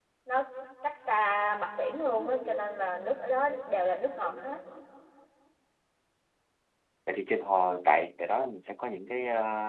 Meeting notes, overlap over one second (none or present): none